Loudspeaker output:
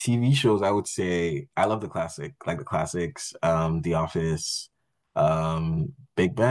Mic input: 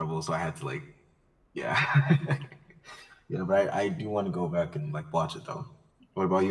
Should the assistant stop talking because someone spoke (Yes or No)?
Yes